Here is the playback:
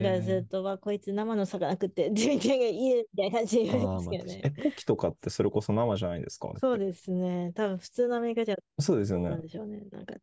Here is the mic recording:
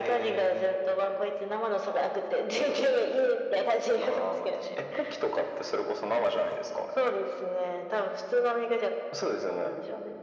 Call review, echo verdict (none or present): present